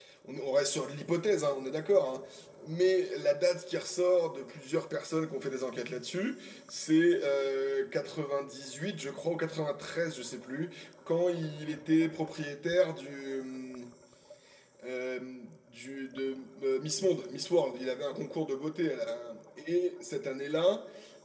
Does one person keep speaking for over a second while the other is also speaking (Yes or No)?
No